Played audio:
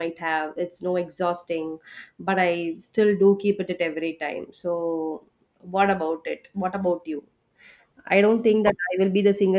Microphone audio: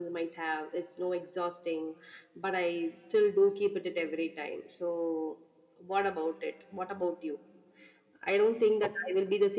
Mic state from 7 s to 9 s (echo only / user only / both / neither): echo only